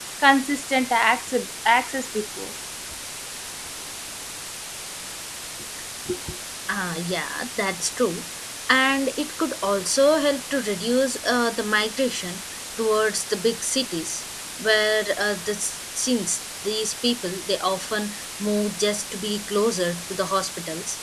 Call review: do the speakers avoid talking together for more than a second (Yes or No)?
Yes